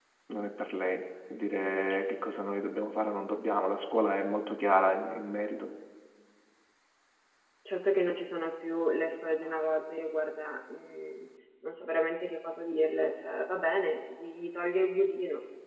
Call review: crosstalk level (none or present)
none